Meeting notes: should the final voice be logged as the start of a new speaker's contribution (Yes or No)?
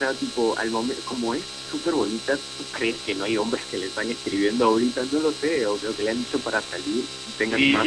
Yes